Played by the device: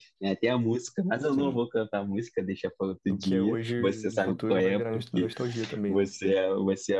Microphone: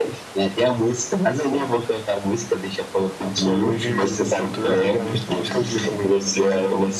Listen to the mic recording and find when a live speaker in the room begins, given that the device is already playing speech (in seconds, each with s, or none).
3.6 s